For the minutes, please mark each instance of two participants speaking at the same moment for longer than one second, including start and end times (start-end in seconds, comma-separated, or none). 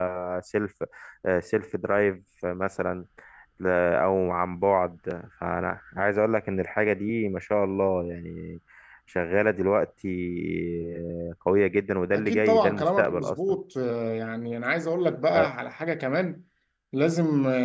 12.1-13.4